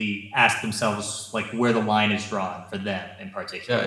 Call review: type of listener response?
taking over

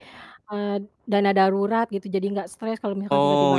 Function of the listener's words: taking over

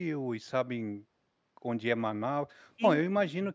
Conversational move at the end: listening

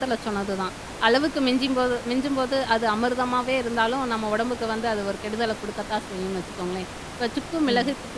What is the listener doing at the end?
listening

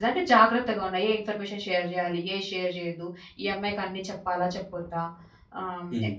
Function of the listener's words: listening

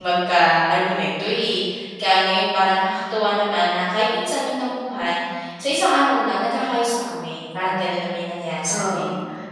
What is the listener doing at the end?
taking over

